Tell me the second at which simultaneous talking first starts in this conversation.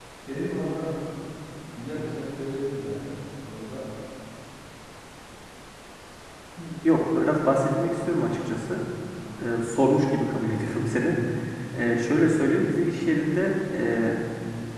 none

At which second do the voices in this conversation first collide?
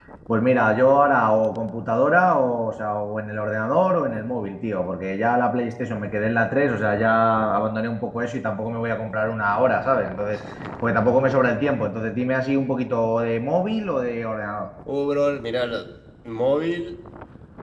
none

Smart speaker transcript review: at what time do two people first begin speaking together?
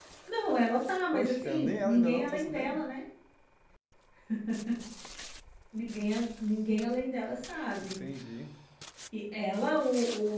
1.1 s

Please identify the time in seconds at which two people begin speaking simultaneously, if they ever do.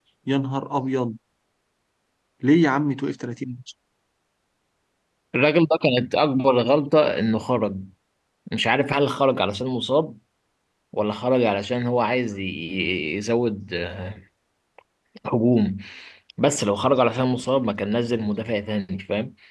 none

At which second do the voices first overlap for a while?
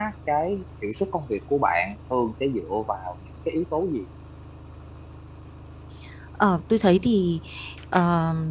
none

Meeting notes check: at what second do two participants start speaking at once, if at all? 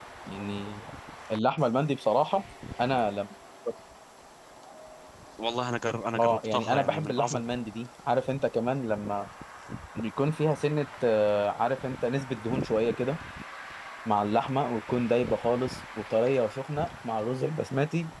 6.2 s

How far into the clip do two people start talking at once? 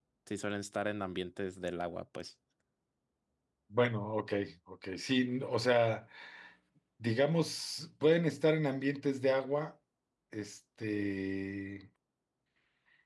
none

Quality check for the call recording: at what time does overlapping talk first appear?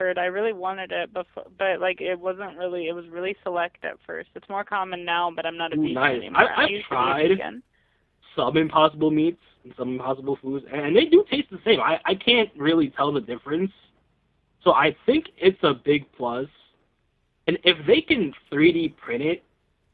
5.7 s

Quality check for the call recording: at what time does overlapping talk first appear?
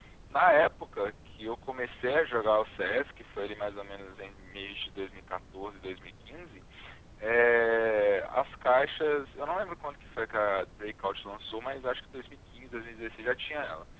none

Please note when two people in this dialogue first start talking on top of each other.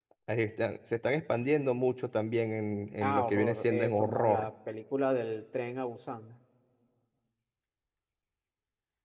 3.0 s

